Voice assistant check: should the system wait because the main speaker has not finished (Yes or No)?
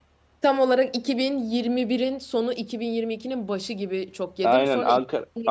No